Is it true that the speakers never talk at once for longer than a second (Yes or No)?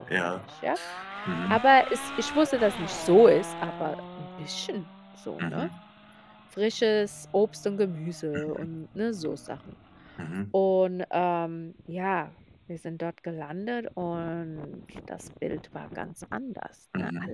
Yes